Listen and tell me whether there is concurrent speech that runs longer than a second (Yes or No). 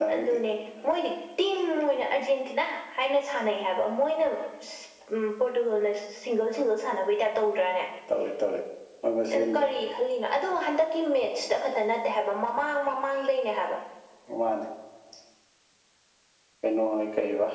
No